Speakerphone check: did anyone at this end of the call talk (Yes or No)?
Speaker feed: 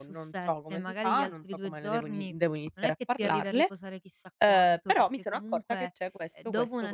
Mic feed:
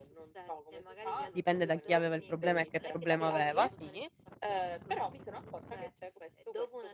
Yes